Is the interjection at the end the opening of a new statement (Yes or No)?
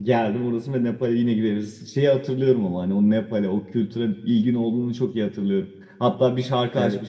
No